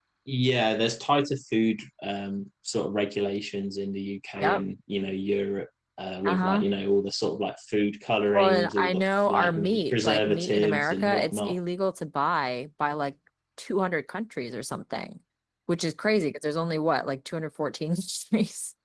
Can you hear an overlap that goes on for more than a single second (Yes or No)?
Yes